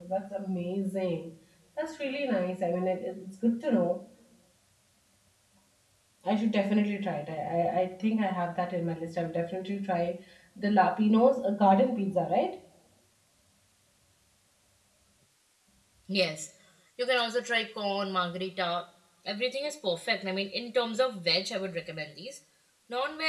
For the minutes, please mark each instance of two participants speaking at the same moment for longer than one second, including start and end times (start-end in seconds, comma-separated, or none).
none